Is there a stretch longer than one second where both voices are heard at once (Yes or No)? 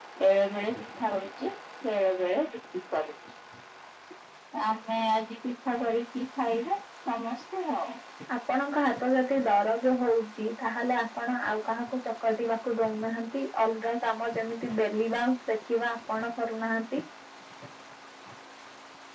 No